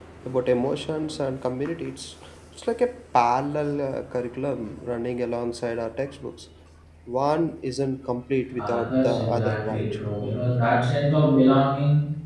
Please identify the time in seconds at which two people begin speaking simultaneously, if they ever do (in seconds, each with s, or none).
8.5 s